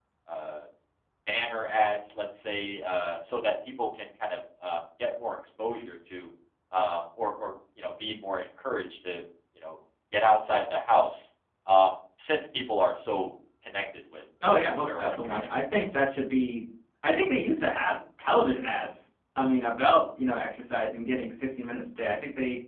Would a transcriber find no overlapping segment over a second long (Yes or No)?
No